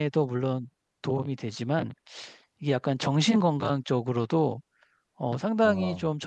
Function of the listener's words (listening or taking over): listening